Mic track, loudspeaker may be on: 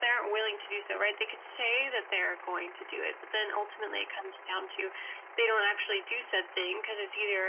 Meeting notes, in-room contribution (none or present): none